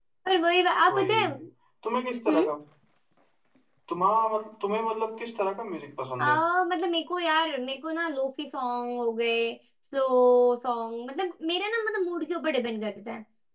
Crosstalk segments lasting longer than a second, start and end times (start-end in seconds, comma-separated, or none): none